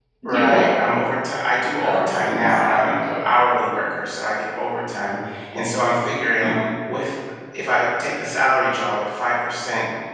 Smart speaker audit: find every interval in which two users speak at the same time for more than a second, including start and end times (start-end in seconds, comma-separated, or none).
1.8-3.1